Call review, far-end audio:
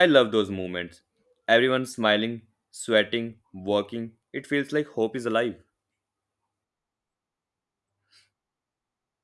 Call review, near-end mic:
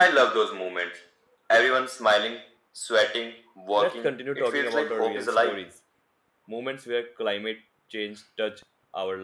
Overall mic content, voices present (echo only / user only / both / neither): both